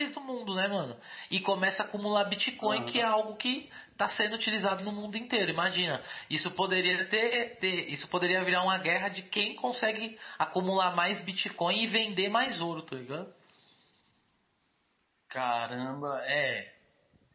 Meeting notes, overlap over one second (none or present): none